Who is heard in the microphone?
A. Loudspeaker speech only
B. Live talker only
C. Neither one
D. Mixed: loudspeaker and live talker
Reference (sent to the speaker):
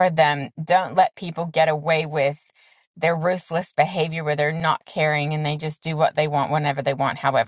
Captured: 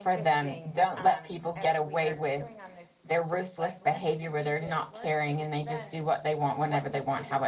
D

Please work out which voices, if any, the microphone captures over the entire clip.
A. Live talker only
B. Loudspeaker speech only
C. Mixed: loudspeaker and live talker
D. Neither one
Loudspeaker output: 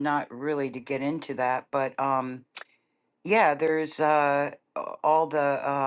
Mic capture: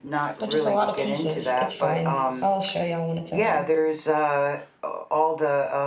C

